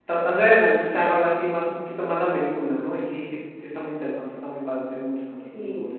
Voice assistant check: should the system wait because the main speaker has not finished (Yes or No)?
No